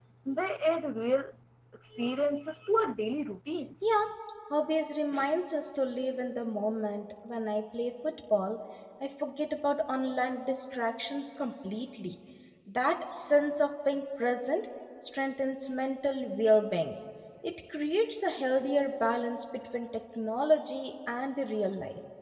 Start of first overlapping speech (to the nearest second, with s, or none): none